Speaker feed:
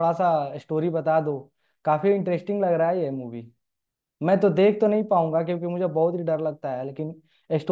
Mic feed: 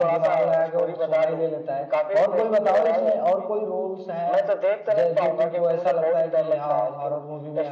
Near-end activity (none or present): present